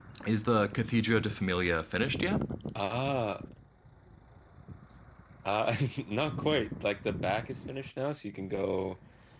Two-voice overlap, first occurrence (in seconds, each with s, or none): none